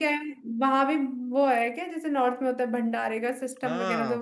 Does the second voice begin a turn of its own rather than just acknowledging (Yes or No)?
Yes